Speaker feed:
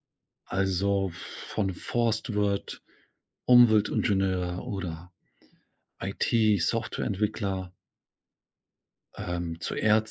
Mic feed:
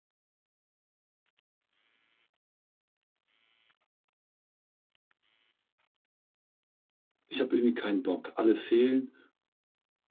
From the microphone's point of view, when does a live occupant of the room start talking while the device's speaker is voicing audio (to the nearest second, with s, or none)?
7 s